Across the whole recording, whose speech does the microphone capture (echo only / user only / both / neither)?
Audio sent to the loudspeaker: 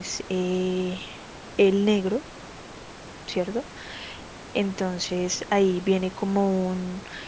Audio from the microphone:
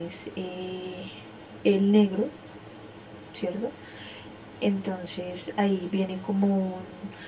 echo only